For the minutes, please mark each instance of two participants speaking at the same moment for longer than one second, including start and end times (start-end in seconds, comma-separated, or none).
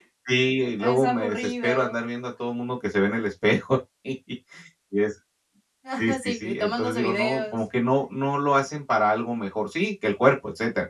0.8-2.0, 6.2-7.6